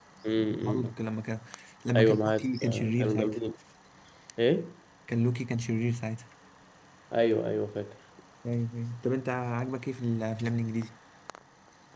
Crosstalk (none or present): present